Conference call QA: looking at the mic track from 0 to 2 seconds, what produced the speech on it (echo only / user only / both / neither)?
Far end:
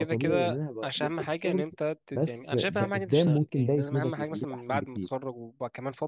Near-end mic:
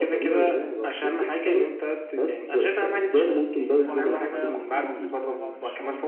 echo only